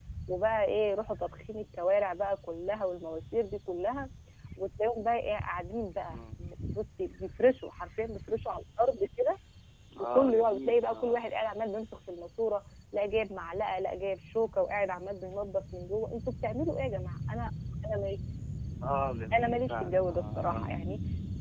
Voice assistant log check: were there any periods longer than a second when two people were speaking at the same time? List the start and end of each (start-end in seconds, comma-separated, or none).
10.0-11.3, 19.4-20.8